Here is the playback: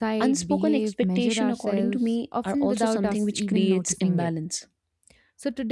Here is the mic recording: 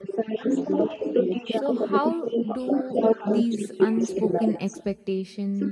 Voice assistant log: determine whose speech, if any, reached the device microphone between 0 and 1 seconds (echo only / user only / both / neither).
echo only